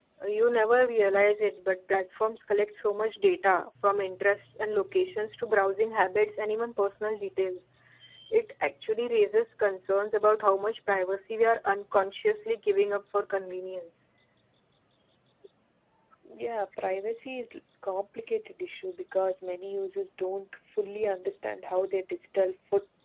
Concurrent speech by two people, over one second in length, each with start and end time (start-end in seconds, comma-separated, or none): none